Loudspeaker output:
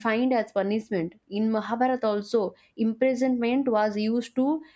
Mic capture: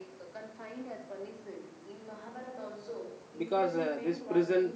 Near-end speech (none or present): present